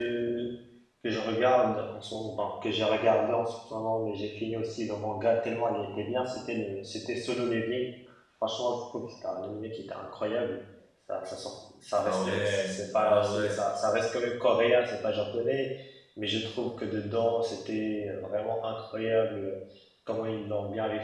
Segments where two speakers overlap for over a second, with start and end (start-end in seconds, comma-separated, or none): 11.9-13.6